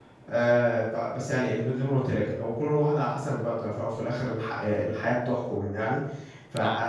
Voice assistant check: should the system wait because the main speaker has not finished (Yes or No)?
Yes